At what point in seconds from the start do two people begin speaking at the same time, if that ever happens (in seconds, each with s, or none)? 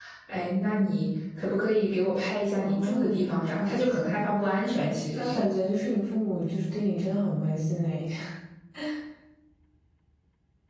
2.6 s